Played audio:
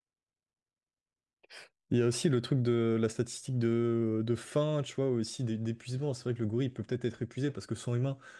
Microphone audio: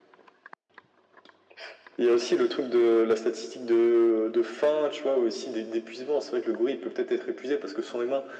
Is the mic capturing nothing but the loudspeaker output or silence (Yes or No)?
Yes